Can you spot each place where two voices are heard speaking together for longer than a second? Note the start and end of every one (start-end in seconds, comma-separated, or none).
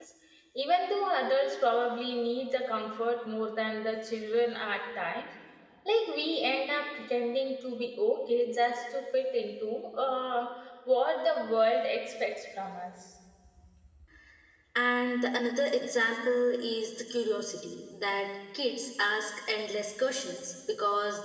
none